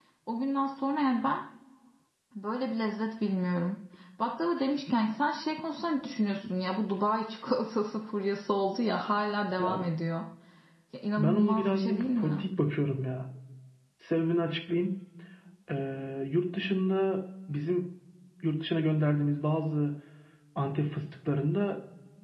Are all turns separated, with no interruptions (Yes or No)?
No